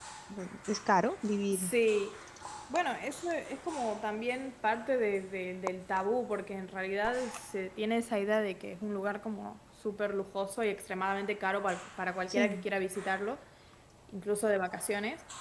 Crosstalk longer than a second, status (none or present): none